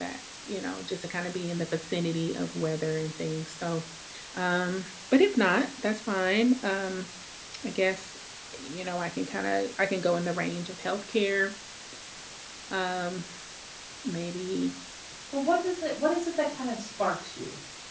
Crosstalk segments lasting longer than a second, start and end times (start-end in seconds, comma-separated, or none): none